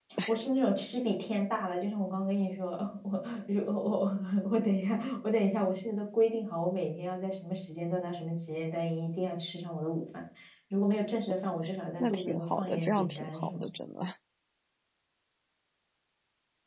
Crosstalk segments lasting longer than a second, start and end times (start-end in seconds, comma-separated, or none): 12.0-13.7